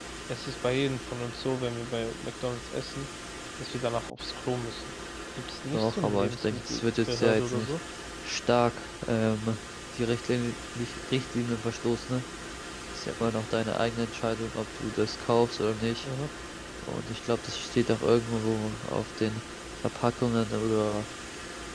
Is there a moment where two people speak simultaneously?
Yes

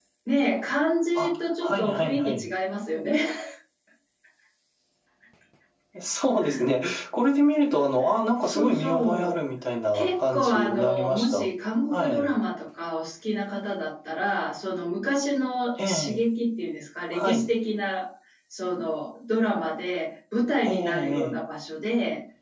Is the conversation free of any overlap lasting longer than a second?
No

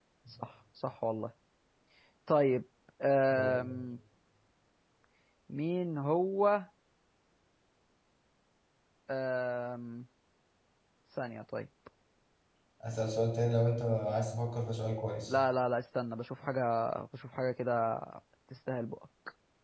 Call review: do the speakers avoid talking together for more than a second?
Yes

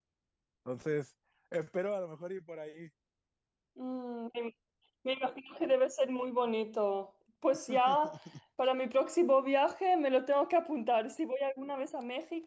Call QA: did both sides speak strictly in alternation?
Yes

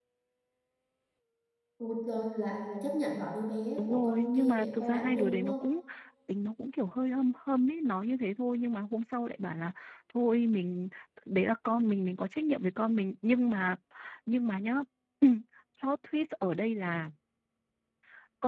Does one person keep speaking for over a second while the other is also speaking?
Yes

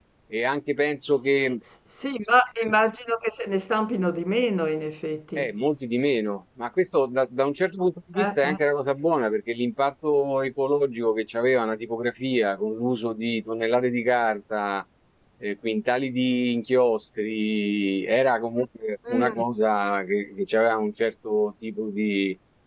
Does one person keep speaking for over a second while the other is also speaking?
No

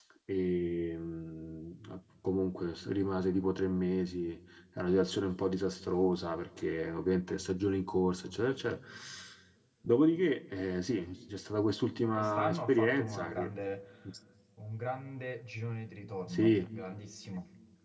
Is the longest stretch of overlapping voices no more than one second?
No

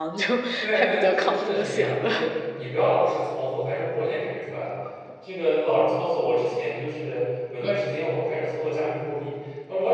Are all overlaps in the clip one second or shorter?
No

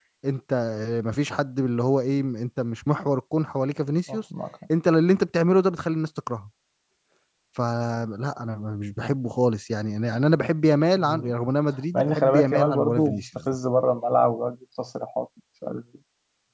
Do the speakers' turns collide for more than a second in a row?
Yes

